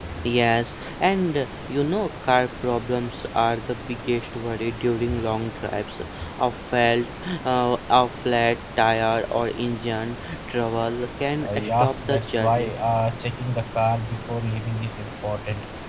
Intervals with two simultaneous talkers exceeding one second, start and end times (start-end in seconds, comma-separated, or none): 11.4-12.7